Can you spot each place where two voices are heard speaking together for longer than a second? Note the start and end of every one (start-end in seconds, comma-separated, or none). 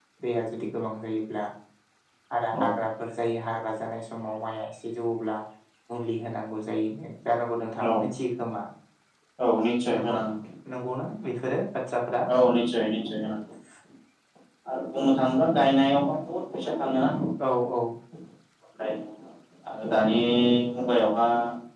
none